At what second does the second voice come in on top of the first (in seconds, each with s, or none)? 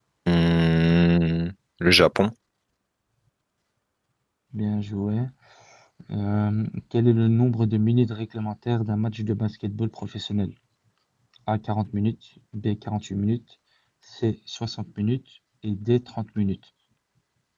none